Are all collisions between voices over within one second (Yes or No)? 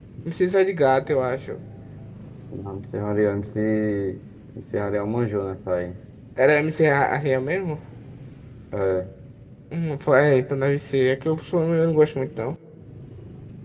Yes